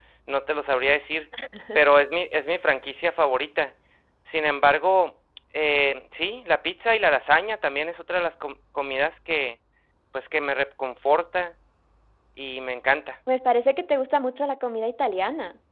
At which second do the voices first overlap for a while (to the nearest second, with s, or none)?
none